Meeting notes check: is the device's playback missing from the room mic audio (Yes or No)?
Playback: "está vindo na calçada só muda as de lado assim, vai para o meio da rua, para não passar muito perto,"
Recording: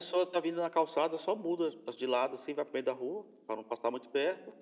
No